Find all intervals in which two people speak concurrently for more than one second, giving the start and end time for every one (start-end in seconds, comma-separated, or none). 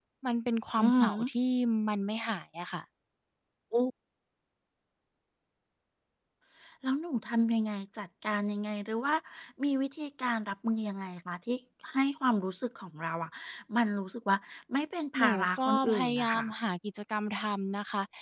15.2-16.5